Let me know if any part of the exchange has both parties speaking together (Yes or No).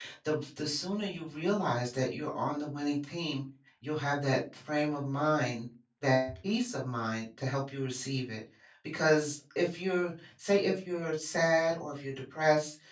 No